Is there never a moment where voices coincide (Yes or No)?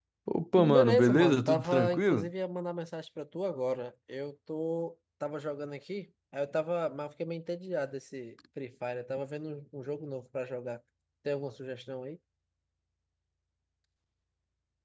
No